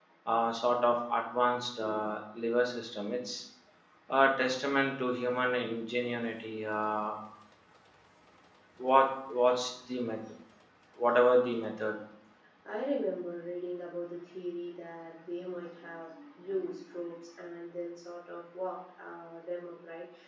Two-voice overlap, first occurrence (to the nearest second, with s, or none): none